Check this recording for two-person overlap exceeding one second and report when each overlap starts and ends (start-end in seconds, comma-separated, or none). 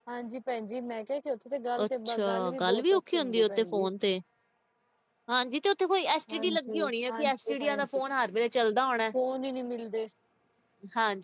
1.8-3.9, 6.3-7.9